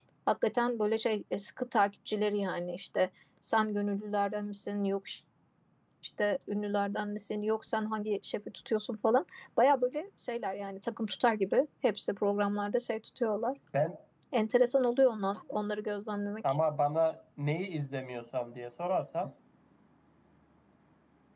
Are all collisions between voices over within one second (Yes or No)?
Yes